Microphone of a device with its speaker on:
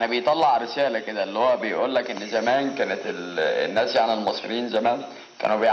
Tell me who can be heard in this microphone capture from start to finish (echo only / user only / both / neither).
echo only